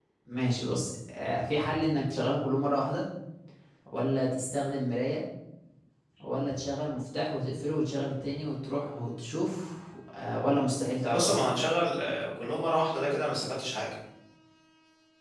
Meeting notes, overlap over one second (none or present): none